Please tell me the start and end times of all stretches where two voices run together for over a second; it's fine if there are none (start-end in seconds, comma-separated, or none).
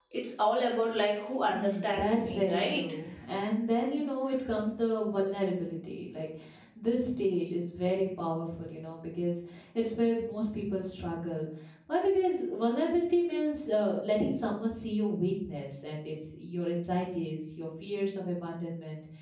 1.5-2.8